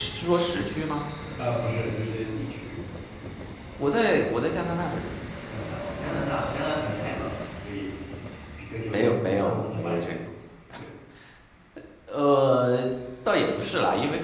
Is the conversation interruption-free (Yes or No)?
No